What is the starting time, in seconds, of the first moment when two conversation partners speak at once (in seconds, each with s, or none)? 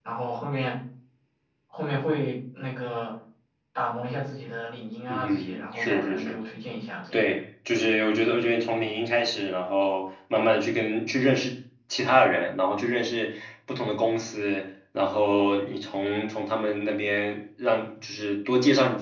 5.1 s